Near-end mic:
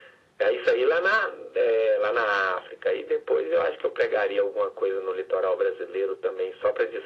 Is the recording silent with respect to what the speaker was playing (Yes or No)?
No